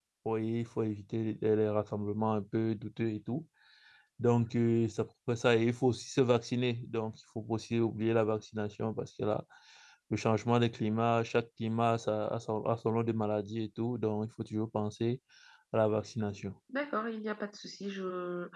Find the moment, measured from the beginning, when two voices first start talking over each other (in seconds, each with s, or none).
none